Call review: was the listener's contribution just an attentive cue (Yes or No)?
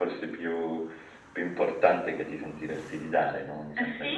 No